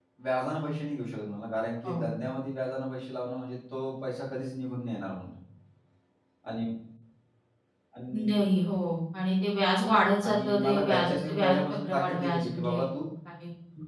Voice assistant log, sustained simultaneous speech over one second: present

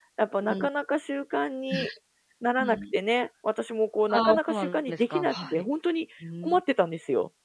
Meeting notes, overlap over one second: present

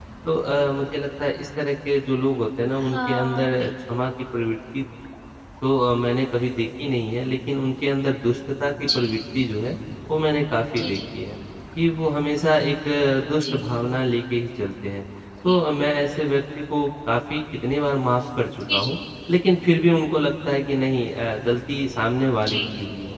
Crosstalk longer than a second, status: present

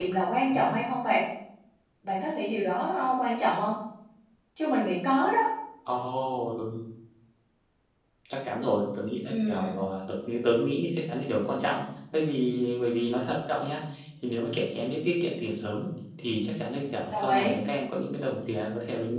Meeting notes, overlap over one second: none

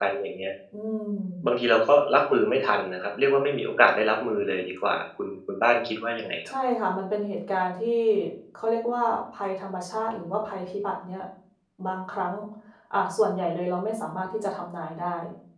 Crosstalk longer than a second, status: none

